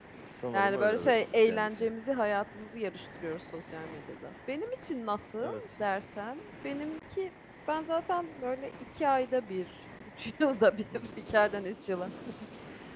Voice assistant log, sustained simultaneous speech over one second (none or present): present